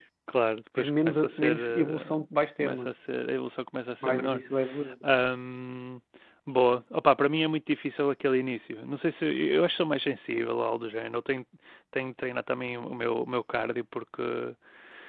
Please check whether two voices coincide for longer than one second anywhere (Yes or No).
Yes